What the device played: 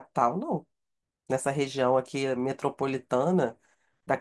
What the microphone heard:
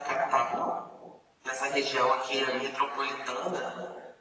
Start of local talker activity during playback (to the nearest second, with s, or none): none